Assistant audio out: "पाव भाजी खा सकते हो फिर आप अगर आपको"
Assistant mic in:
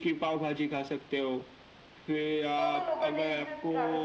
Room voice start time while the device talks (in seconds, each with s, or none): 2.6 s